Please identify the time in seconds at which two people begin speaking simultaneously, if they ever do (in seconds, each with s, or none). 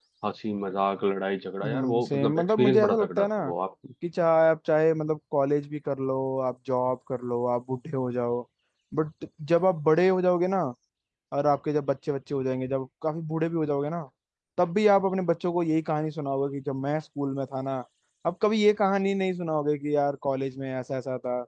1.6 s